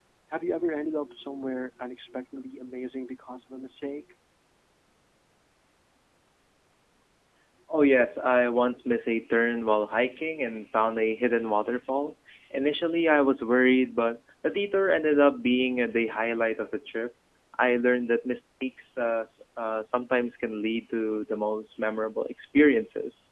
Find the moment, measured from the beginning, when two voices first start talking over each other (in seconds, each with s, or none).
none